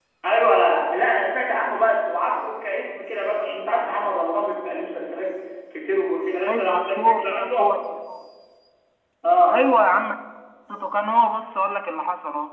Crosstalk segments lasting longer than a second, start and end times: 6.5-7.7

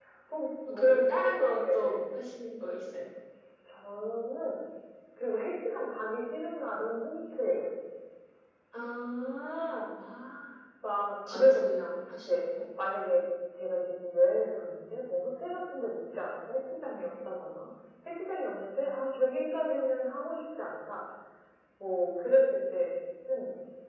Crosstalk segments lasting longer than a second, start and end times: 0.7-2.0

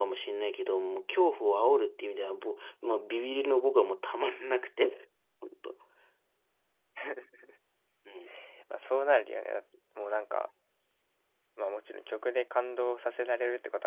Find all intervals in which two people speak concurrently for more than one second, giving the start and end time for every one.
none

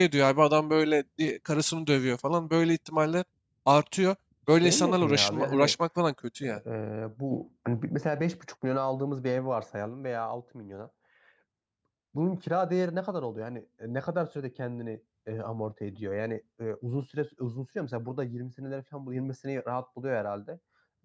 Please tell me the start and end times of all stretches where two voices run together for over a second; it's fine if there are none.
4.5-5.8

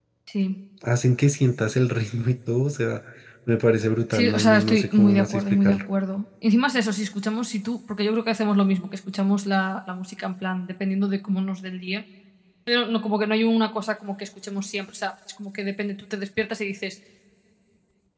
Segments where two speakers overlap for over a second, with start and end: 4.1-5.8

